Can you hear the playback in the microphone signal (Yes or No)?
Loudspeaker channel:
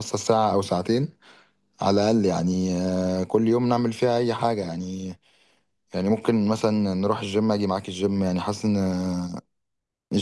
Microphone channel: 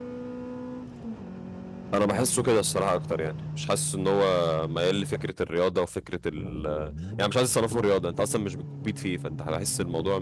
No